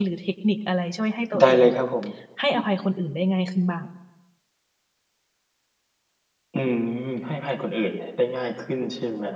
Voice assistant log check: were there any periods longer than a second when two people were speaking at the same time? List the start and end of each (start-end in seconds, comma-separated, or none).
none